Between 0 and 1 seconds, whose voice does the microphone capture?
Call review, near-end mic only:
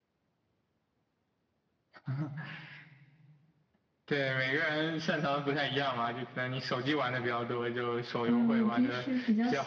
neither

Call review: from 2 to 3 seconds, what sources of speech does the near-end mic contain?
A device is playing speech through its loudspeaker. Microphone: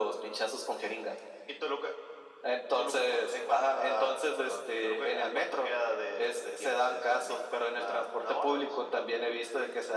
echo only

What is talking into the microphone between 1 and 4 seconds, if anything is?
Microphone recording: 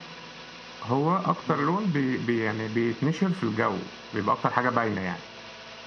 echo only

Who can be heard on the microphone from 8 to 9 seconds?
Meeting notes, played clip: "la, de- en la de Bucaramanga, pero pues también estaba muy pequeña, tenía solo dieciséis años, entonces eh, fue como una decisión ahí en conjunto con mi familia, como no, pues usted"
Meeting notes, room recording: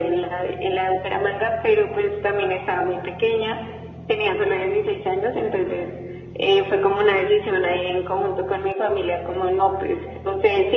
echo only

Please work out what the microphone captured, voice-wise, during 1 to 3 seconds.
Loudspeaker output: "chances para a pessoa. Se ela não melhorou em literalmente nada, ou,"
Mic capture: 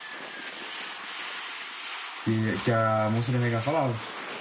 user only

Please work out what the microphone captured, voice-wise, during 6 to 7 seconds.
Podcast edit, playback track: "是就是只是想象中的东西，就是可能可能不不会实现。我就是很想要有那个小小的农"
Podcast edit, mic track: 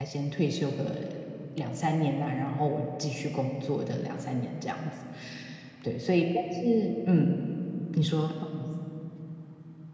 user only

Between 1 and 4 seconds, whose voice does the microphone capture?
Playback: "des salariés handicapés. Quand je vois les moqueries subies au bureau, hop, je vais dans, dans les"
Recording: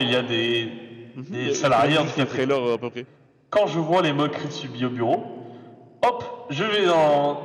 both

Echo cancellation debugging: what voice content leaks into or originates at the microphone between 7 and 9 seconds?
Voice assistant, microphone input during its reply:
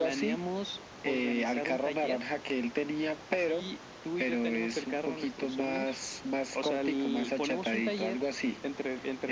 echo only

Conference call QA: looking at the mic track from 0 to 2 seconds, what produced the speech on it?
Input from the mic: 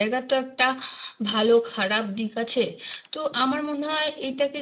user only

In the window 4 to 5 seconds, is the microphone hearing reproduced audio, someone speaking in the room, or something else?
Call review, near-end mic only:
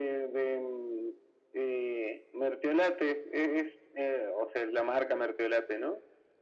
echo only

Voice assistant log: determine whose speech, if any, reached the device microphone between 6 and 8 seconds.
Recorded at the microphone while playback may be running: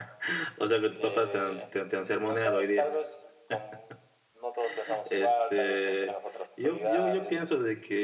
both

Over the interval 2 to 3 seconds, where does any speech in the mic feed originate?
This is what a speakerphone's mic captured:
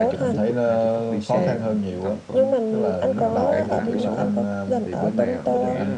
both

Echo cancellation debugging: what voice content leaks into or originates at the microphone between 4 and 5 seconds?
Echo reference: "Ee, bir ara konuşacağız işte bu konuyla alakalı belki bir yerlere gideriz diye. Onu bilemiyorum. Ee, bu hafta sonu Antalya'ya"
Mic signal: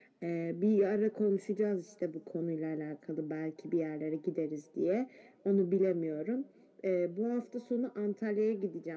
echo only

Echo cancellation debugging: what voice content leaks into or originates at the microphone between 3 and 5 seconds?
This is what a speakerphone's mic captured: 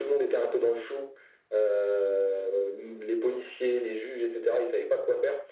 echo only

